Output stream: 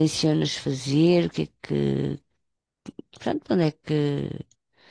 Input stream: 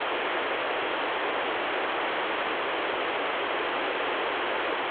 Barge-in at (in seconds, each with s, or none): none